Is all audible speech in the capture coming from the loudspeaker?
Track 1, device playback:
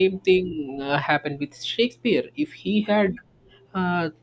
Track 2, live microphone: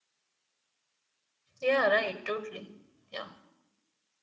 No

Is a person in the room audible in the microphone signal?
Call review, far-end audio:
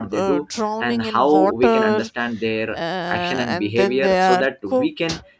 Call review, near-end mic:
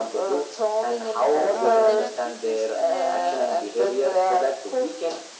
Yes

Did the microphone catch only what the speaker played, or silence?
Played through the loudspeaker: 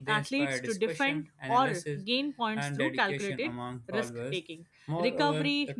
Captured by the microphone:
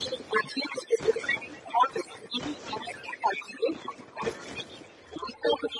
Yes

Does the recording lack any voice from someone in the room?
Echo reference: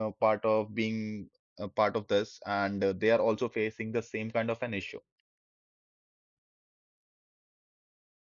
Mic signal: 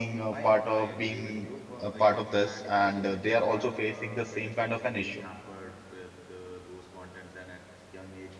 No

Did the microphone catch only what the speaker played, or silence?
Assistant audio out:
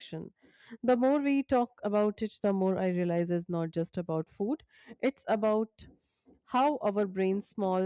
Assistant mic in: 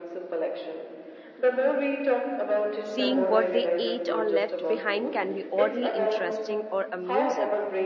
No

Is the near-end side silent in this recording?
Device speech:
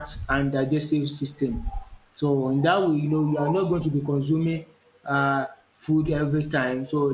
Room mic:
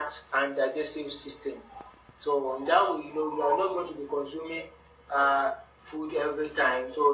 Yes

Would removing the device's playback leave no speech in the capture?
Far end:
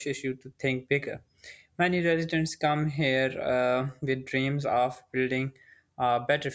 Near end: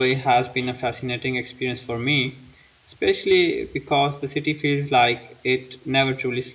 No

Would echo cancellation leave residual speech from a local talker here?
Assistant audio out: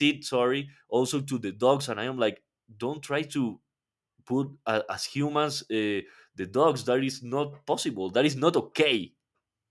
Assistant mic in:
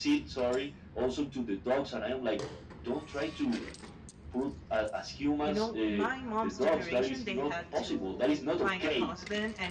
Yes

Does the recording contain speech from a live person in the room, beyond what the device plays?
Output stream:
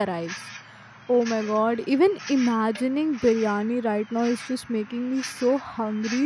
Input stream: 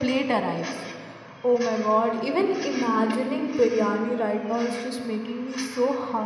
No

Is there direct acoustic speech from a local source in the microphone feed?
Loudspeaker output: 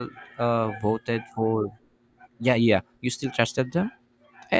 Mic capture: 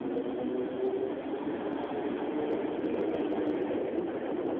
No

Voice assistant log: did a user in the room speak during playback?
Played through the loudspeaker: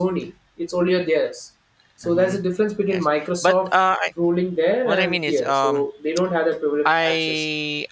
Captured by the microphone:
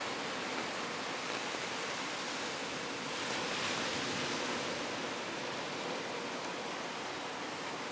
No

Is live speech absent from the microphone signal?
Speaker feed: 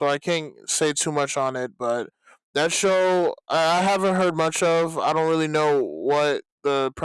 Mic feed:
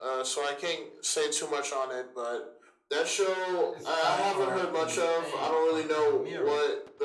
No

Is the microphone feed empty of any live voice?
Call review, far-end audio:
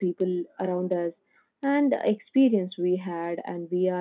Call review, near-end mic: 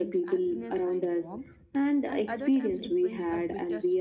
No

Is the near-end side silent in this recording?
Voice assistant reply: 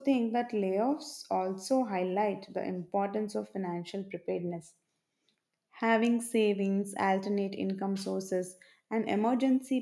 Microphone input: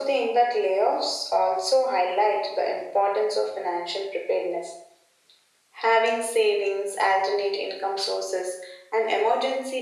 Yes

